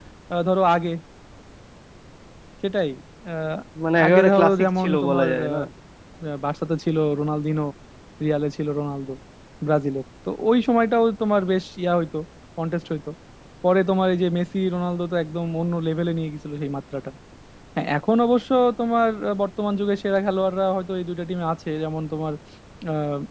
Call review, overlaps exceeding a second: present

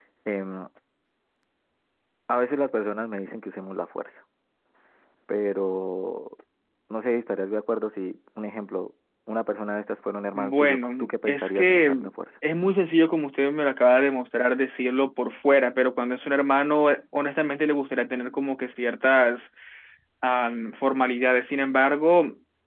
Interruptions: present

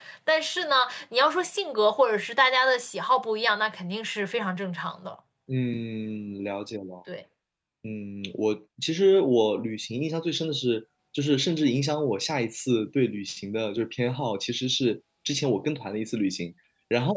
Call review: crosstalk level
none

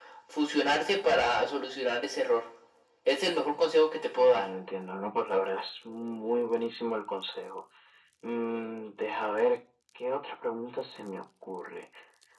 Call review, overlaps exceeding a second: none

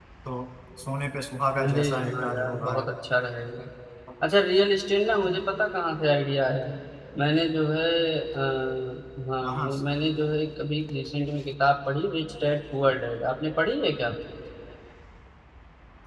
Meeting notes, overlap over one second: present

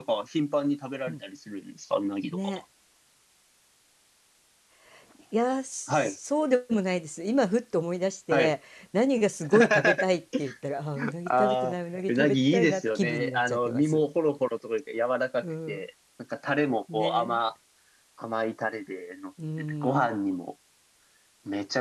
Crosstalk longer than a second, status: present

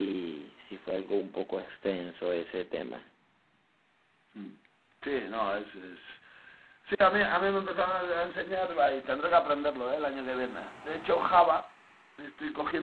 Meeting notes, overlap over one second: none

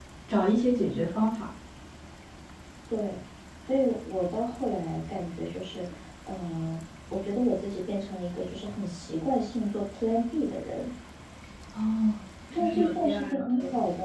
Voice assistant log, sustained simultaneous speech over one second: present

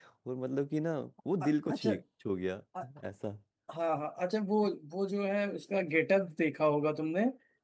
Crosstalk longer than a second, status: none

